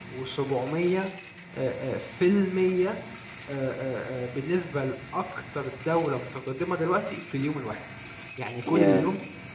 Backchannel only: Yes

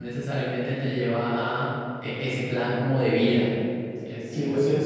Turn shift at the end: Yes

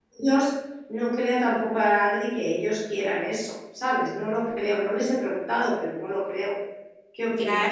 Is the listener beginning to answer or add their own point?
Yes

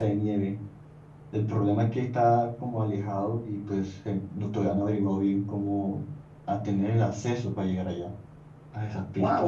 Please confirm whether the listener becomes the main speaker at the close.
Yes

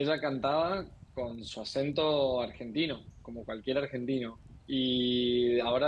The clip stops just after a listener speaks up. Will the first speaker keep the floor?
Yes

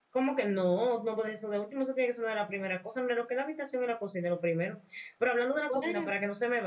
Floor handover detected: No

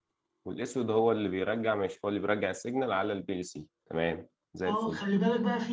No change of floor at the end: No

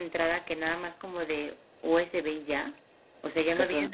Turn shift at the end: No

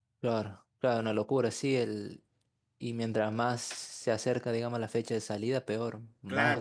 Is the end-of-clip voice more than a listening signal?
Yes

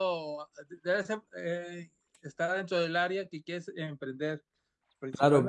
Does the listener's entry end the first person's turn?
Yes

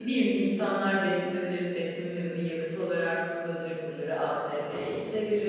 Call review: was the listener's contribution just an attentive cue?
Yes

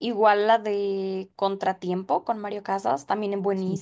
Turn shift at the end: No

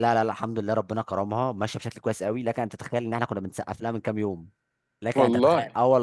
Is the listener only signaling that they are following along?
Yes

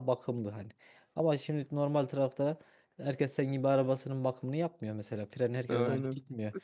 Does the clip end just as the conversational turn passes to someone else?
No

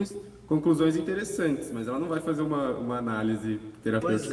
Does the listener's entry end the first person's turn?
Yes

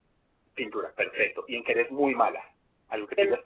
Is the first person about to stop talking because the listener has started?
No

